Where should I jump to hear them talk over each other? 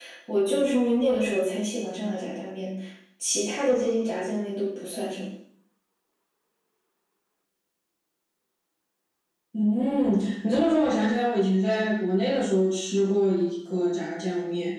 none

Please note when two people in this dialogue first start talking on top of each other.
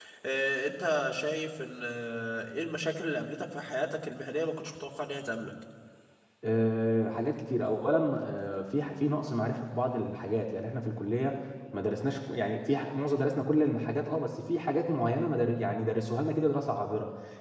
none

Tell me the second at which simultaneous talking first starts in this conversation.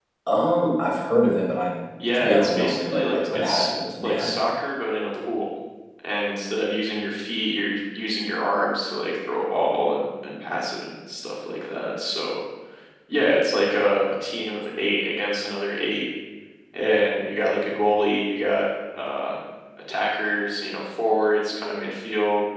2.1 s

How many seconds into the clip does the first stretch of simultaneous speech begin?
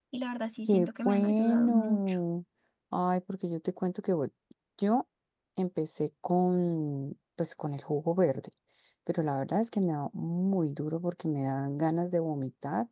0.7 s

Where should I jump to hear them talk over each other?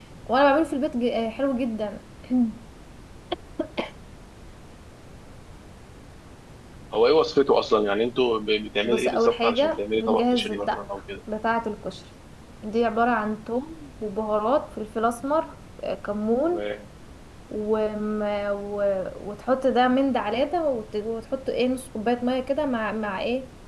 8.8 s

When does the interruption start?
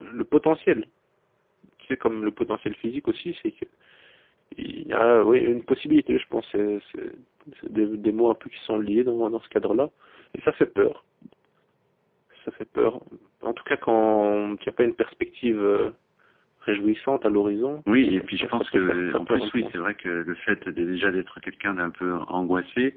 17.9 s

